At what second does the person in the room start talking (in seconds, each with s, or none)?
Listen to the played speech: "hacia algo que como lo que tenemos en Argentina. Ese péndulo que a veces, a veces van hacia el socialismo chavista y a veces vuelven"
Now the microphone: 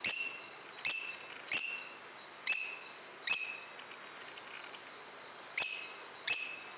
none